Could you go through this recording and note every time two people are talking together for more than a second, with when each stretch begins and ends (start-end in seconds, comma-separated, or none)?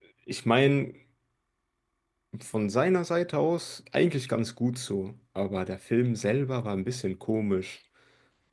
none